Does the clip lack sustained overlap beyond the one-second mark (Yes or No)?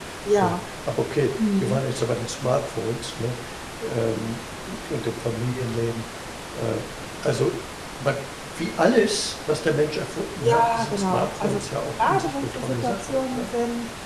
No